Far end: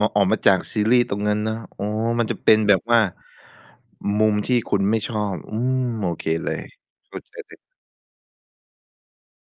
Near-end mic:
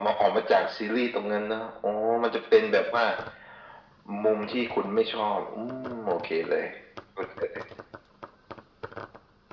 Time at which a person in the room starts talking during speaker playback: none

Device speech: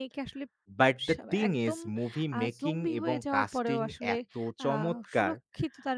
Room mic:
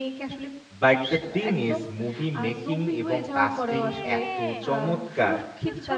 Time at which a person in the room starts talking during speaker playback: 3.8 s

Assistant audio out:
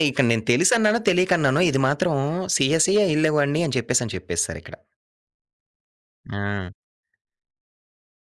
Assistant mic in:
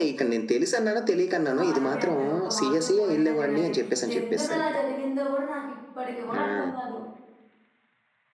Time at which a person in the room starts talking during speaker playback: 1.5 s

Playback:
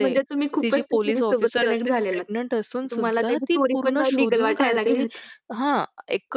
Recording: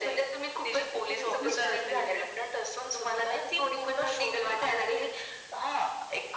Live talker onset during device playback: 1.0 s

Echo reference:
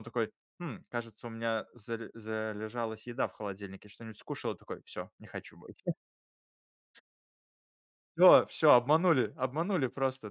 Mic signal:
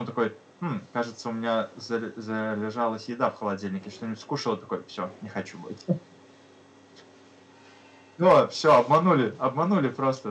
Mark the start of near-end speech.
none

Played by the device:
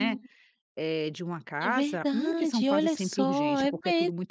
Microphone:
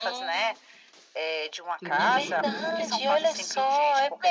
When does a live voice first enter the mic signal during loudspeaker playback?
1.8 s

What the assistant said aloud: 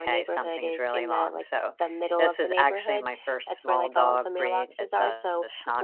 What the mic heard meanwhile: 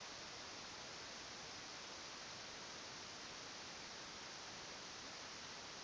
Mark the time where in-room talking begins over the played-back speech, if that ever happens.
none

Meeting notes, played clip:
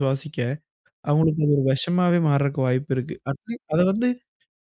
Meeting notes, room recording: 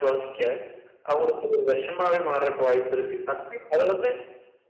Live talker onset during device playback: none

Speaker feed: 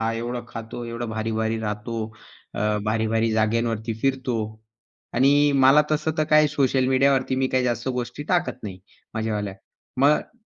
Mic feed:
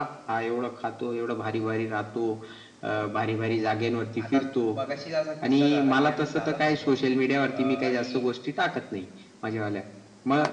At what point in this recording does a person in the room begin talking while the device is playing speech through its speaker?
4.2 s

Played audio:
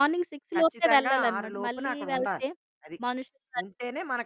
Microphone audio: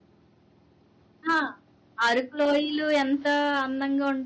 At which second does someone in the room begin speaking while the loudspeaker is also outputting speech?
1.3 s

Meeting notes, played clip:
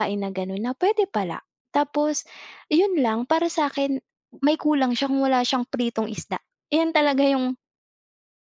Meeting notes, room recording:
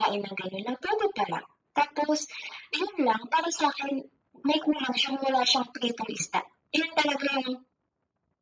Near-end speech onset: none

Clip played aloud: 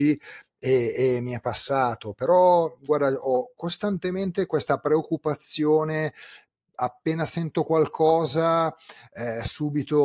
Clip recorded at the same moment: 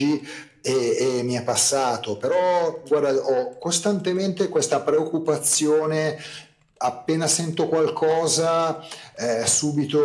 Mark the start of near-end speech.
none

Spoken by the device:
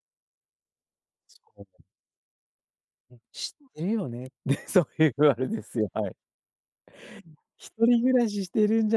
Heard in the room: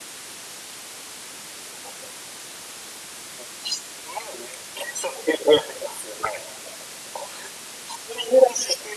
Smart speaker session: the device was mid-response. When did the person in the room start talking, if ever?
none

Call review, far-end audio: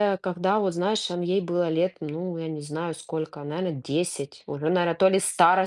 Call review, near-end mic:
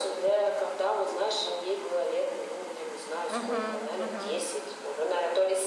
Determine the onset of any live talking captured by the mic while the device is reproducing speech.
3.3 s

